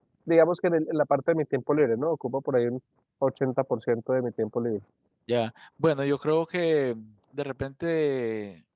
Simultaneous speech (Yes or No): No